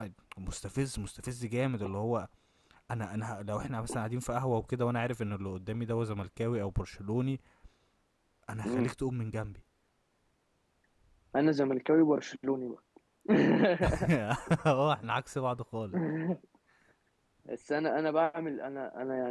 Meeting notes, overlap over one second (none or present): none